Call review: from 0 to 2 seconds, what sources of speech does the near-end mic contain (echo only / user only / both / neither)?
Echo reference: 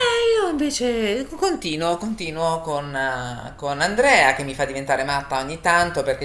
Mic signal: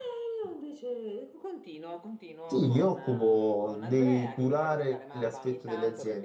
echo only